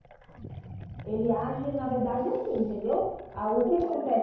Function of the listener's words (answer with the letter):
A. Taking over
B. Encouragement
B